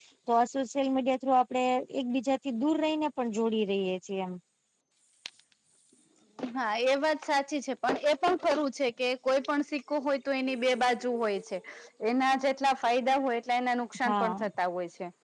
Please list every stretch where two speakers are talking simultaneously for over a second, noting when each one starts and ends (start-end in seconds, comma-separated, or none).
none